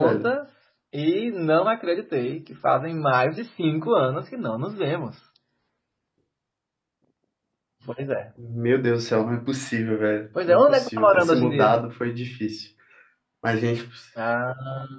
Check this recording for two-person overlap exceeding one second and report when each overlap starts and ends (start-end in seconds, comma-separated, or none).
10.5-11.8